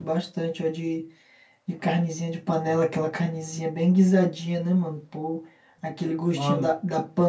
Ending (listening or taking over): listening